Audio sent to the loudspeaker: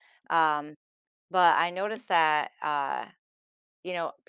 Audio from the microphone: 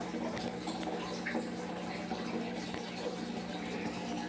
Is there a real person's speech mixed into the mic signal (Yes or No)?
No